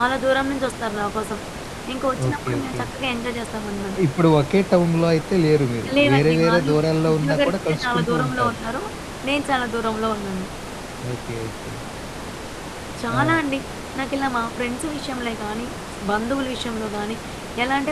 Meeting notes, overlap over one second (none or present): present